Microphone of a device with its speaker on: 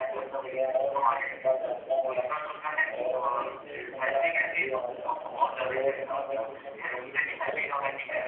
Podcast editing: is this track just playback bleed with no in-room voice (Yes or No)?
Yes